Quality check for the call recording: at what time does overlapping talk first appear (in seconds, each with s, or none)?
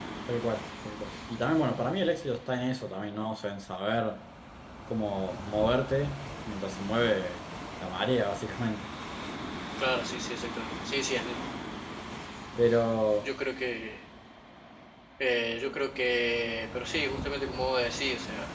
none